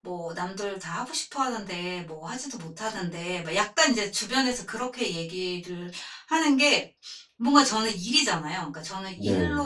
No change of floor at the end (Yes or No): Yes